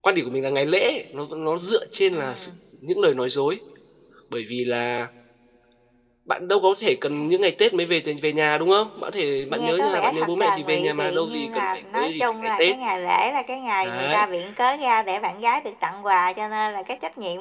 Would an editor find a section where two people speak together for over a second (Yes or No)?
Yes